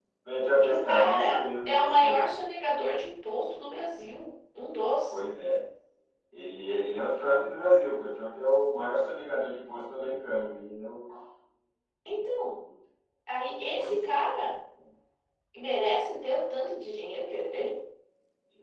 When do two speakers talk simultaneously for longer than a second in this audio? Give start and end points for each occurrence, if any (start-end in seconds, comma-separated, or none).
0.6-2.3